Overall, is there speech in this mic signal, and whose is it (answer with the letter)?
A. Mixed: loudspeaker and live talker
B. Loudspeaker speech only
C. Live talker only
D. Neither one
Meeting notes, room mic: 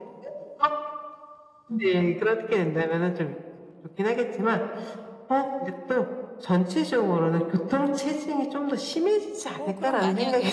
A